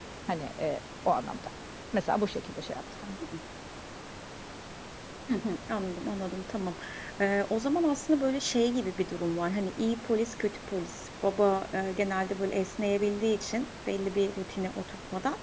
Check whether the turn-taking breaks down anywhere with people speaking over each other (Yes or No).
No